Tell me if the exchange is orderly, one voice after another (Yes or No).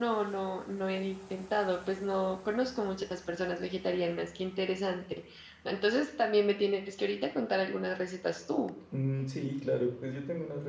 Yes